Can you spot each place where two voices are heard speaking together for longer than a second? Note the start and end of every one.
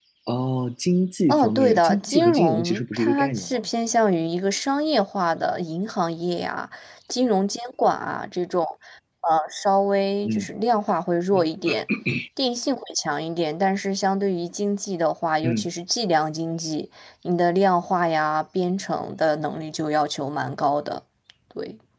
1.3-3.6

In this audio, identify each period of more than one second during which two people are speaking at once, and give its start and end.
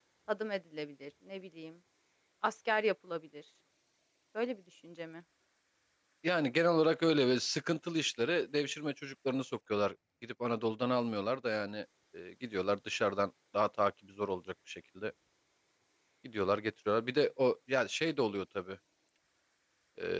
none

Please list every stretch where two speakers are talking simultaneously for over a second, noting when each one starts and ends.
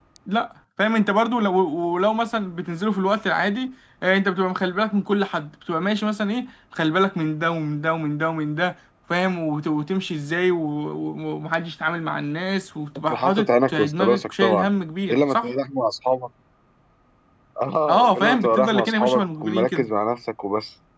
13.1-14.7, 17.9-19.9

